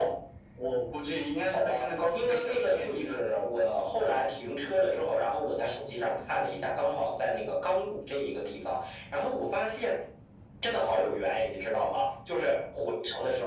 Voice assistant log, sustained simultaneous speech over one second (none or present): present